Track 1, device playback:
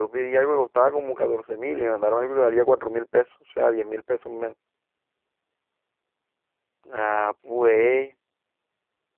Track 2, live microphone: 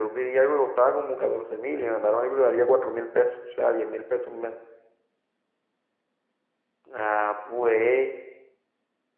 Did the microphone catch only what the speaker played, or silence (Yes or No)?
Yes